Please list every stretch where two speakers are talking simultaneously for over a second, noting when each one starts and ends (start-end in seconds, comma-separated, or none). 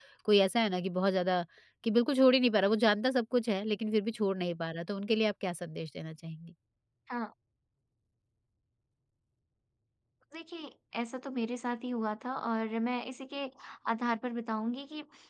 none